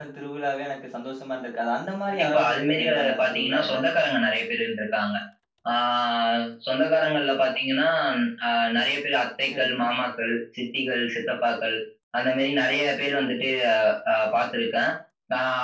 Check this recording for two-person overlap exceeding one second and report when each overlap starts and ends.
2.1-3.8

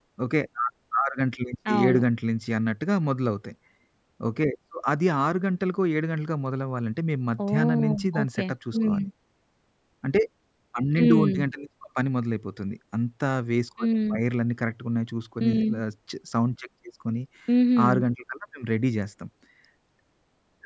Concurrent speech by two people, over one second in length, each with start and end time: 7.5-9.1

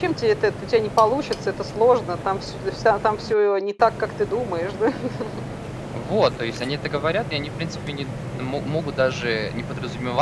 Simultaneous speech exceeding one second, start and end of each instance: none

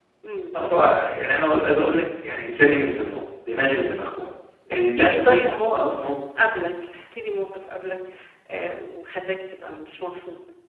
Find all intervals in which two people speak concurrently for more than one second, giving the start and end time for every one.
4.7-6.1

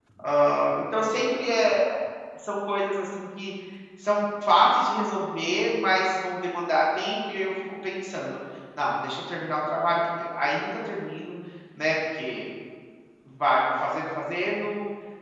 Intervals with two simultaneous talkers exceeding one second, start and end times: none

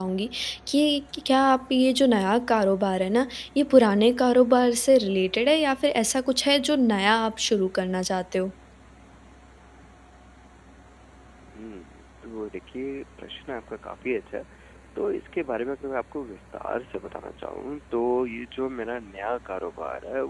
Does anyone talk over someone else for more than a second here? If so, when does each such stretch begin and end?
none

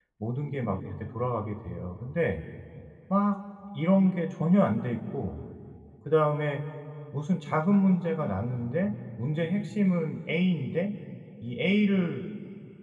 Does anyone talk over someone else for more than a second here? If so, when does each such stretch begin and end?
none

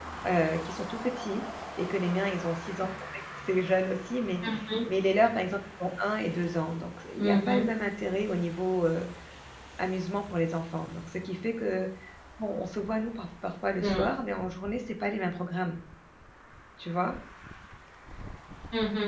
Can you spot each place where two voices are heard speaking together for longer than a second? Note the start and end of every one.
none

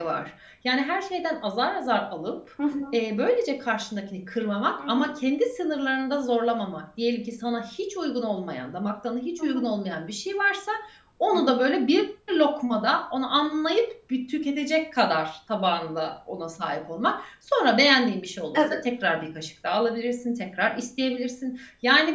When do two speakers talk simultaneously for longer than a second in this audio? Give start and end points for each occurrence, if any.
none

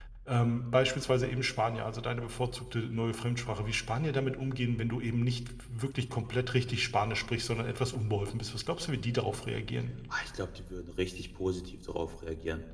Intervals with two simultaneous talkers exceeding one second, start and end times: none

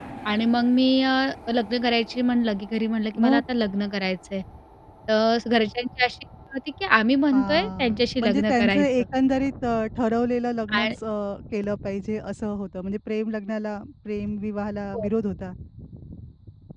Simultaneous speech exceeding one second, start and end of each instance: 7.3-8.9

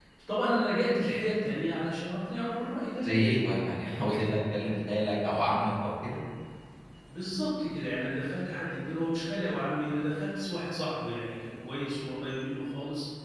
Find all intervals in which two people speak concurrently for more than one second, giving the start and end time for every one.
none

